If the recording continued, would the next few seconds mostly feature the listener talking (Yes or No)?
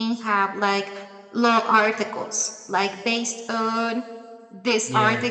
No